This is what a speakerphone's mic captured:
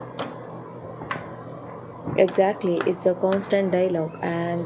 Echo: none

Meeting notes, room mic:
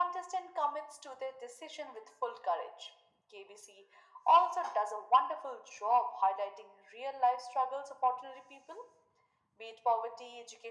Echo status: present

